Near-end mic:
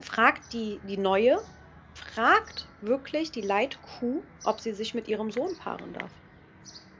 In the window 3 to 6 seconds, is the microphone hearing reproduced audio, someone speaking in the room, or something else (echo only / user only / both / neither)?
user only